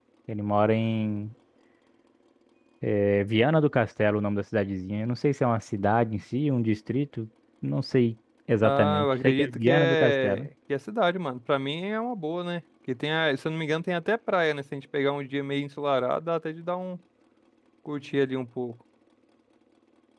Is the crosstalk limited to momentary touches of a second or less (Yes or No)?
No